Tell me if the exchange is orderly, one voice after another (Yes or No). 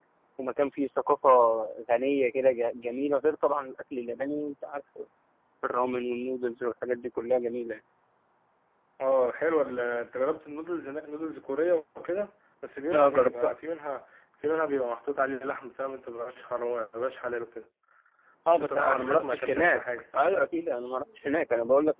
No